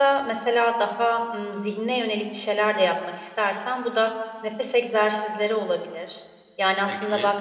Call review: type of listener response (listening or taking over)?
listening